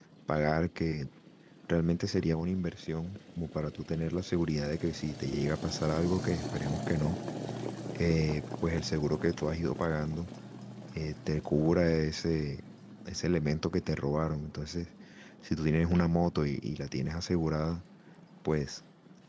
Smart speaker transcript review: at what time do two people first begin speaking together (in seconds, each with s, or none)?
none